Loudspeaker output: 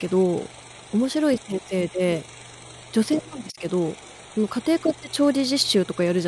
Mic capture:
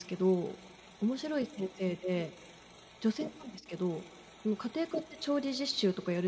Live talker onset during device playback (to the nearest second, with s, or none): none